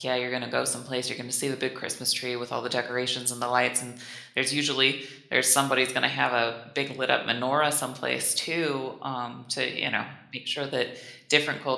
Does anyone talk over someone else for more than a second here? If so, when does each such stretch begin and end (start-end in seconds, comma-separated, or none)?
none